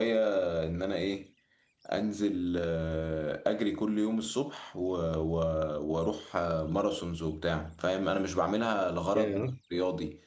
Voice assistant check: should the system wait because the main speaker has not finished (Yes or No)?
Yes